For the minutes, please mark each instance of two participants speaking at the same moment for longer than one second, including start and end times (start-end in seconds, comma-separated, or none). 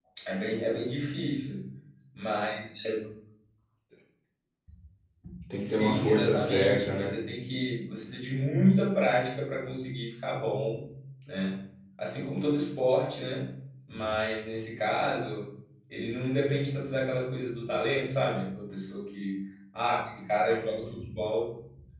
5.6-7.1